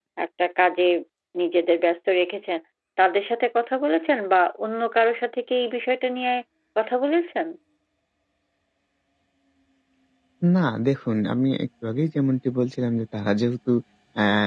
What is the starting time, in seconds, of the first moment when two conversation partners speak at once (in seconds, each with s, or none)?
none